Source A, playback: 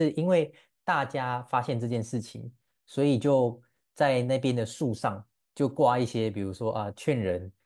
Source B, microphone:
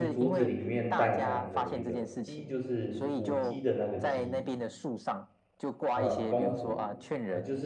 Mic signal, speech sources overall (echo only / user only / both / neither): both